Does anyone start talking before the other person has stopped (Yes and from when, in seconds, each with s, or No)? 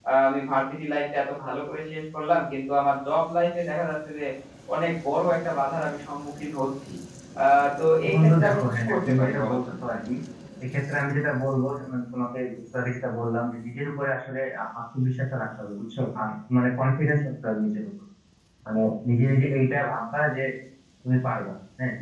Yes, from 8.1 s